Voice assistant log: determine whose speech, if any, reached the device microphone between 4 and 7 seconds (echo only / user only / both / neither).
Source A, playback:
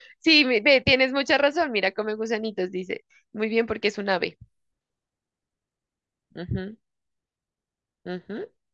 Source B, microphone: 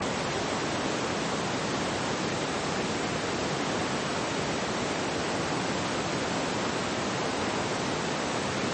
neither